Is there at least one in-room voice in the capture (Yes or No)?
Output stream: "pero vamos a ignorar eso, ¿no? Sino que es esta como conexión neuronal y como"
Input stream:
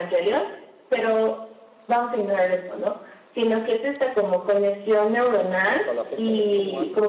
Yes